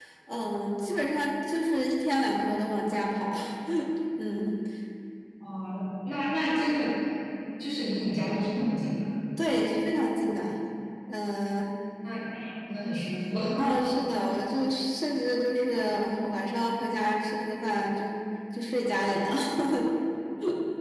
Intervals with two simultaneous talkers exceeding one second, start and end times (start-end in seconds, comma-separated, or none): none